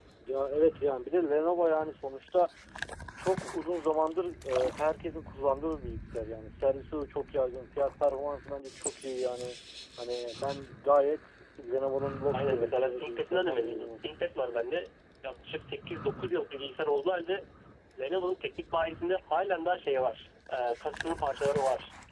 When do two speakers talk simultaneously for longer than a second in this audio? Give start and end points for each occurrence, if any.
12.3-13.9

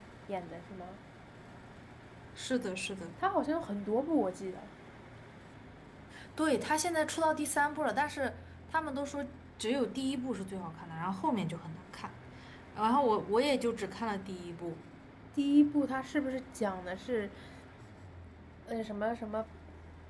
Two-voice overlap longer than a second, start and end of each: none

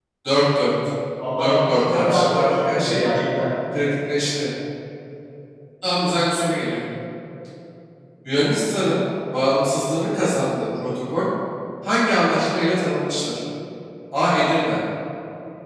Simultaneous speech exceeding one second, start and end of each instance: 1.4-3.0

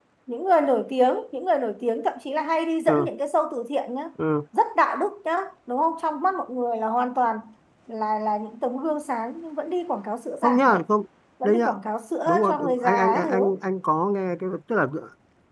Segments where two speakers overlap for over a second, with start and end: 12.3-13.5

